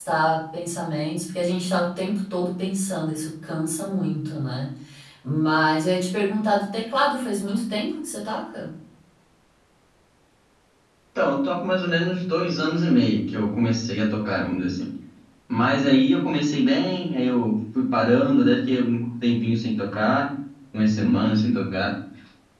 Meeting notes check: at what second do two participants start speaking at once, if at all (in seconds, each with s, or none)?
none